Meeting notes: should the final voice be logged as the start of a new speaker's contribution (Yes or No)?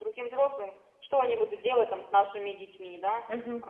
Yes